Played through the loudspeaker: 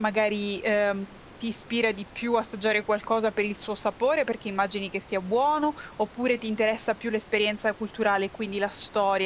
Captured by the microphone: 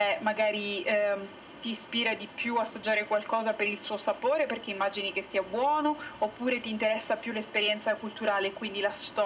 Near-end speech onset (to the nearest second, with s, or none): none